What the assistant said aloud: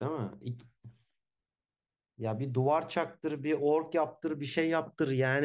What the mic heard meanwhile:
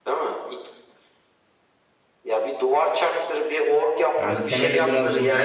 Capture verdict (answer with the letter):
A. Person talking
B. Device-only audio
A